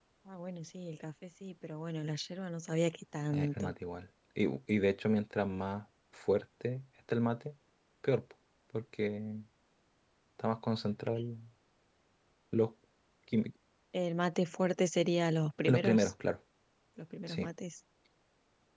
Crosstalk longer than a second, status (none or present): none